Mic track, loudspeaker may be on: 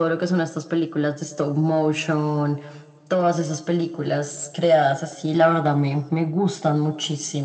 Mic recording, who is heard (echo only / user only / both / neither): echo only